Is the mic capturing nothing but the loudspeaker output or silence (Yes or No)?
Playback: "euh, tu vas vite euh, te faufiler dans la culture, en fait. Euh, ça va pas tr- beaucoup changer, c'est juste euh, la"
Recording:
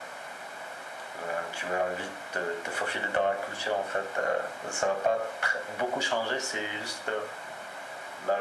Yes